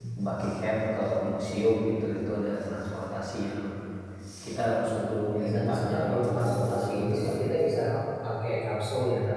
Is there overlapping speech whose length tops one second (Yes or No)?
Yes